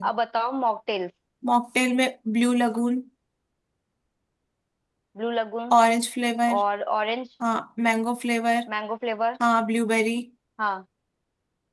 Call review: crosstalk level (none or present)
none